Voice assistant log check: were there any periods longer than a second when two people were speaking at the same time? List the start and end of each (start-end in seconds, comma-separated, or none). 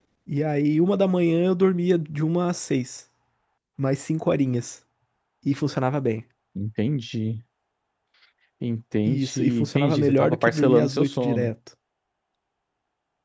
9.1-11.5